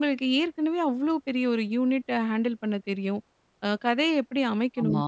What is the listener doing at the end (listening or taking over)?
listening